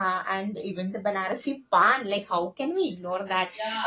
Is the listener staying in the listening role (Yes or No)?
No